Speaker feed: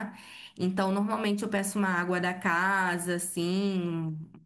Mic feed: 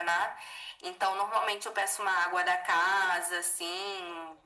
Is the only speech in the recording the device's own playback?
Yes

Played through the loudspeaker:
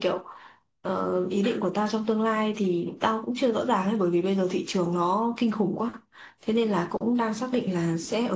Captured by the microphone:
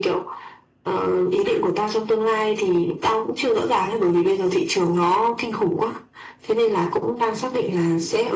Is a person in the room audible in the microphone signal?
No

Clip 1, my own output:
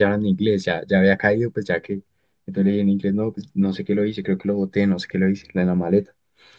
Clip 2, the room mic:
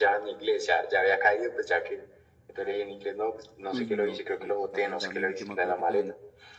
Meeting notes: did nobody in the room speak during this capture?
No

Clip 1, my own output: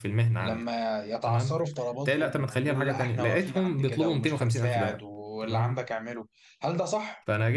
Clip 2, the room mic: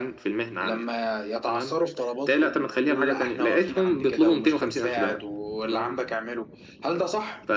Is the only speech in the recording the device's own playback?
Yes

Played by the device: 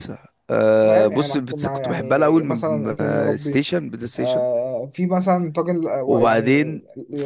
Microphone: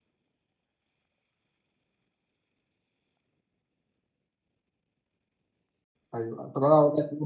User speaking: Yes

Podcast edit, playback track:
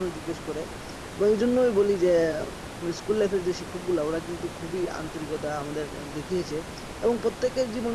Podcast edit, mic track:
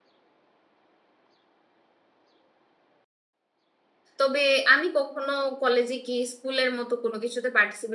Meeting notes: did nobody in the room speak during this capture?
No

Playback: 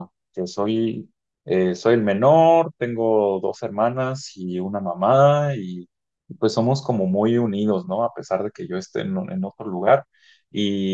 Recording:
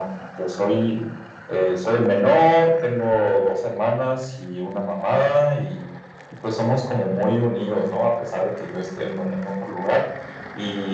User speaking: No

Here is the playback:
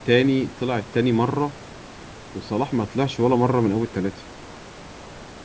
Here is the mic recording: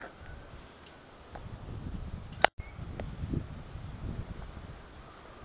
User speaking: No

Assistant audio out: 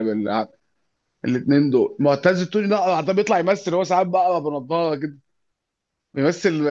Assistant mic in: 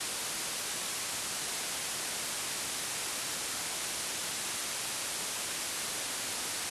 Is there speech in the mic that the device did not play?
No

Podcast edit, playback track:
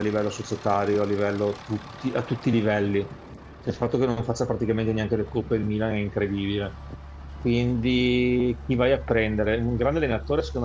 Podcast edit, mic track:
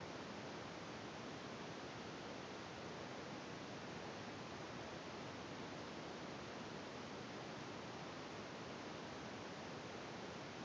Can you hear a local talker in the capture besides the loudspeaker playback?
No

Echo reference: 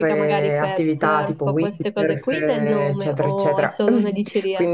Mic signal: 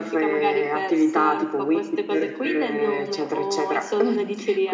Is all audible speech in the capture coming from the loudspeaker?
Yes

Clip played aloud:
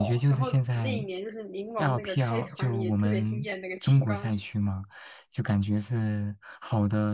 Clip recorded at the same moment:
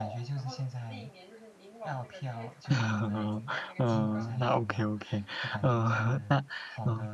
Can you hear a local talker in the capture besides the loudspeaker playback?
Yes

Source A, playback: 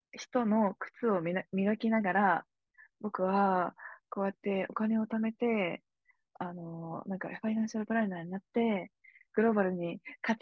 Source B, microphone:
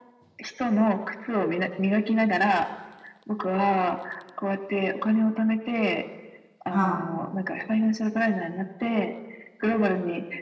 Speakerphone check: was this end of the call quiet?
No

